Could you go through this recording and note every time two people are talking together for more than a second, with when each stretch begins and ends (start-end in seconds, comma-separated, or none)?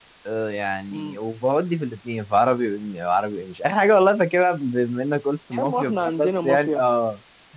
5.6-6.8